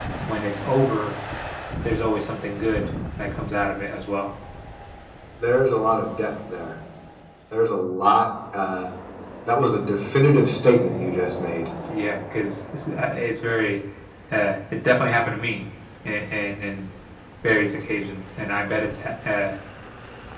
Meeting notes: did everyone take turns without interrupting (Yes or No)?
Yes